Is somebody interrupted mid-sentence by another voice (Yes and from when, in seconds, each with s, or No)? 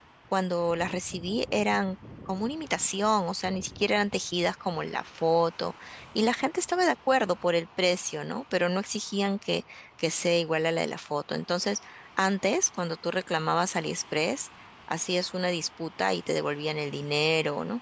No